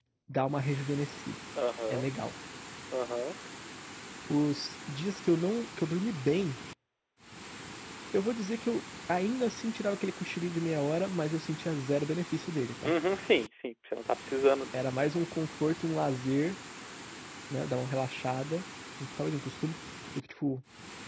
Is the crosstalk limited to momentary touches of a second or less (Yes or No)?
Yes